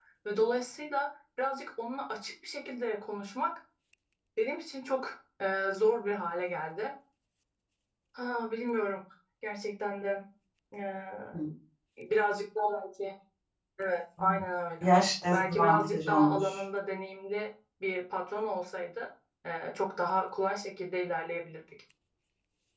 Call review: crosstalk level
present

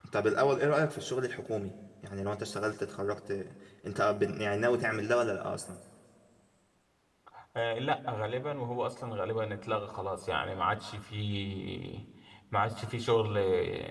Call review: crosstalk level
none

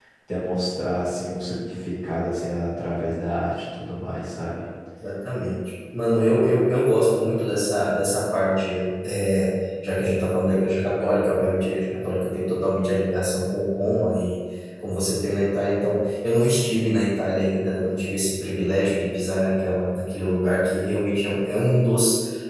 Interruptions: none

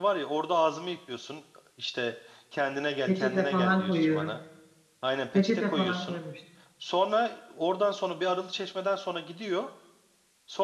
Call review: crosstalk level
present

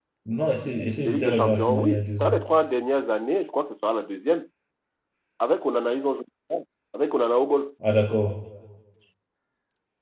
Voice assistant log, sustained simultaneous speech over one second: present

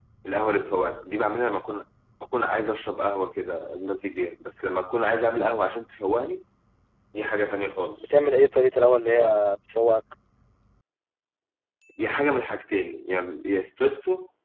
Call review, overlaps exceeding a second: none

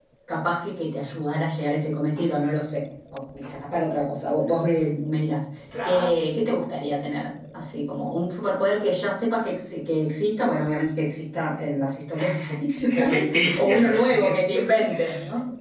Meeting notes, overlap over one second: present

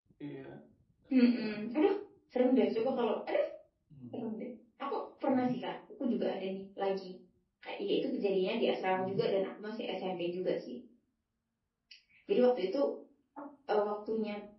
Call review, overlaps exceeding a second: none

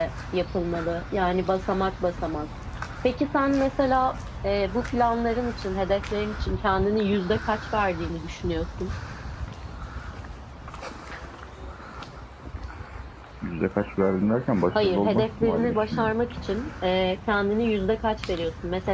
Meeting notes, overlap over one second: present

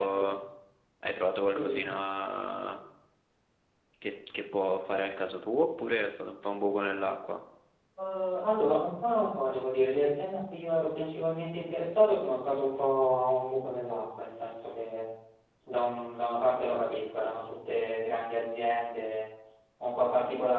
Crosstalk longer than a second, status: none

